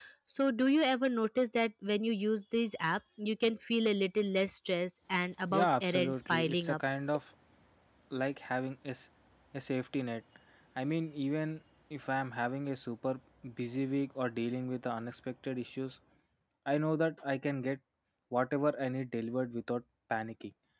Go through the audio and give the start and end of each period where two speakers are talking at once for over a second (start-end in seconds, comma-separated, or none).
5.5-6.8